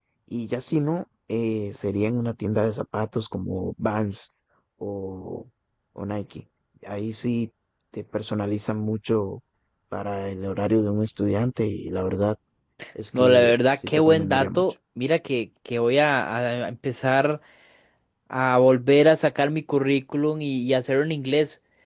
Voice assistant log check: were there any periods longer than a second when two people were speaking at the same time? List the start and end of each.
13.1-14.6

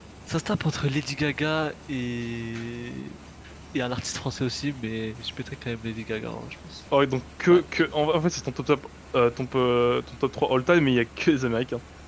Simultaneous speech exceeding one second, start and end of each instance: none

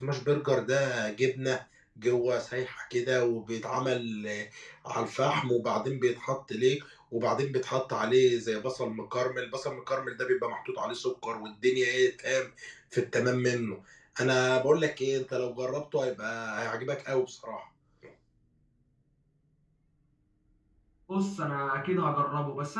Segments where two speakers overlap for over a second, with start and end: none

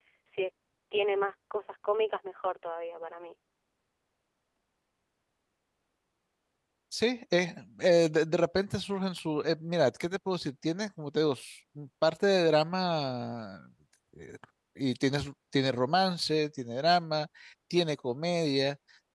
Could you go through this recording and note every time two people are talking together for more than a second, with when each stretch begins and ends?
none

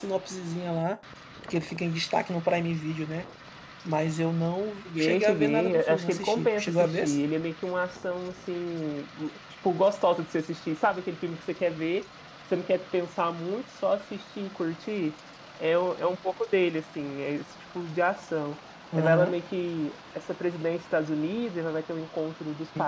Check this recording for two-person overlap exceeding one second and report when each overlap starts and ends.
5.0-7.0

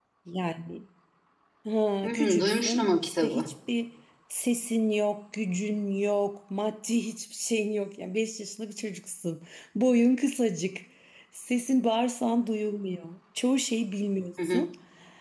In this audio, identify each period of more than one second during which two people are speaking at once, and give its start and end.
2.0-3.5

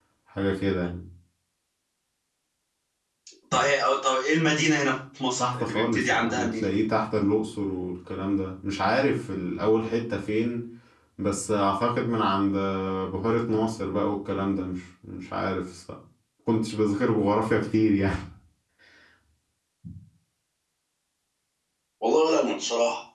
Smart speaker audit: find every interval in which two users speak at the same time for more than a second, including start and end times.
5.4-6.7

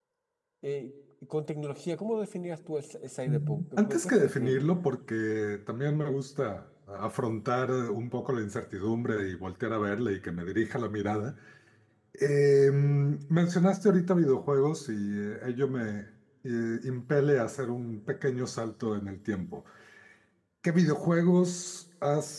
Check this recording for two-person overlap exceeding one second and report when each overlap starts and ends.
3.3-4.7

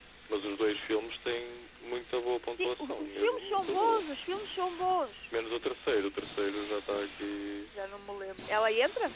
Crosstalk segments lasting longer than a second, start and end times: 2.6-4.1

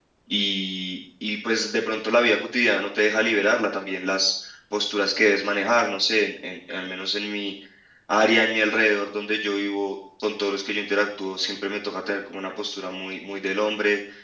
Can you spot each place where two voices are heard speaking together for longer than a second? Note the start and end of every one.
none

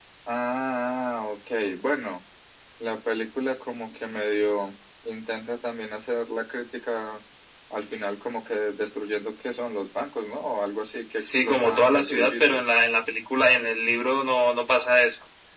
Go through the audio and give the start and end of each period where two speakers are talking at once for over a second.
11.3-12.6

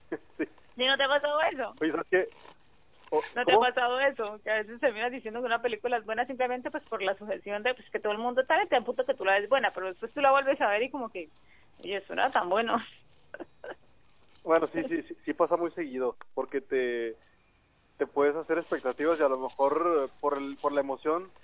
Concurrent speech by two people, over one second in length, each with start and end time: none

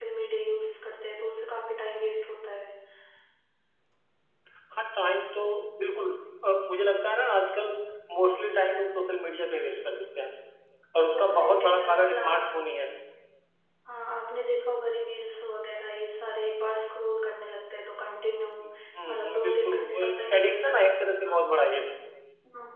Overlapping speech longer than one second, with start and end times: 11.1-12.3, 19.1-20.7

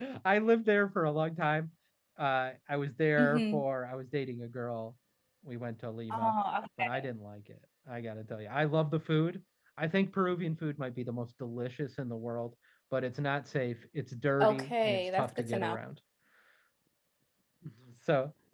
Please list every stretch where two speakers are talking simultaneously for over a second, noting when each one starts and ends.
14.4-15.8

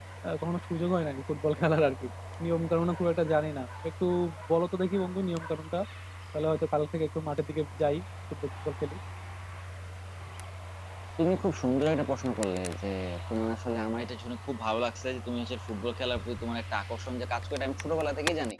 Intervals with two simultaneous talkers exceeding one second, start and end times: none

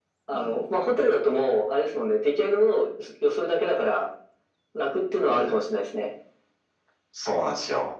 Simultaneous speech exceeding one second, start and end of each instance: none

